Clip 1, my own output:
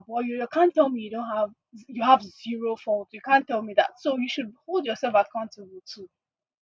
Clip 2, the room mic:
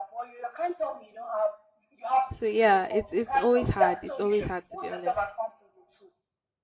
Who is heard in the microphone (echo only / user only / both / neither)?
both